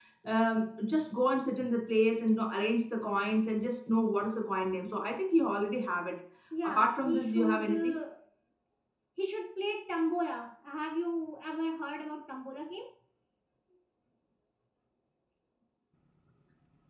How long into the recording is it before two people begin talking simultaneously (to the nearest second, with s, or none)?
7 s